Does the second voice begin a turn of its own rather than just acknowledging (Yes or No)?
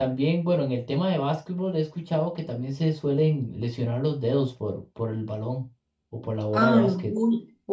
Yes